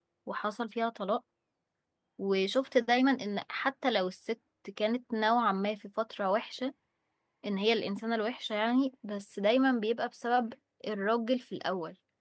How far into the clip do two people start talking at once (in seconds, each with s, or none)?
none